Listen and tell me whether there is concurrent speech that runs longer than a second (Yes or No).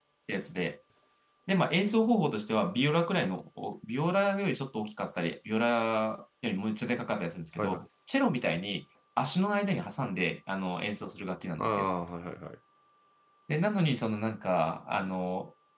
No